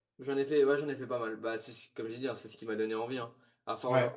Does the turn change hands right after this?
No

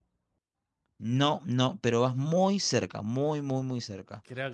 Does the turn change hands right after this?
Yes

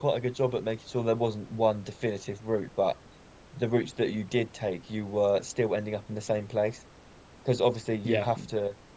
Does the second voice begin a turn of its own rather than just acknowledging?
No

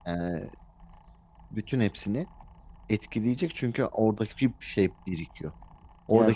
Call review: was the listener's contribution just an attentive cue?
No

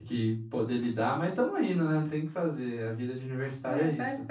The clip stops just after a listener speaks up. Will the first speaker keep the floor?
No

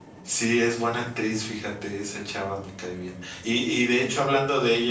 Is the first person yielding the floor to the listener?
No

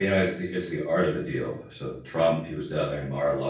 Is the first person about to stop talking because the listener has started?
No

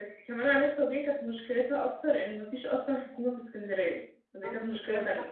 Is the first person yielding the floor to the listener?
Yes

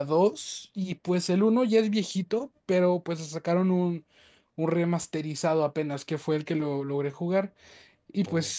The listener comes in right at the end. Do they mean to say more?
No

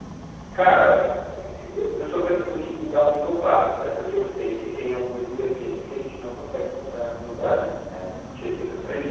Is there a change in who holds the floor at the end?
Yes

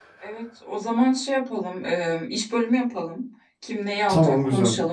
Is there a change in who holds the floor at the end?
No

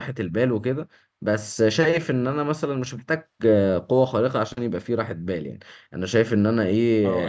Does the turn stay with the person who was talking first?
Yes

